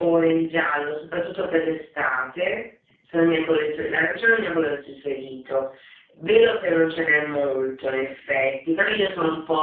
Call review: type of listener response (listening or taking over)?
listening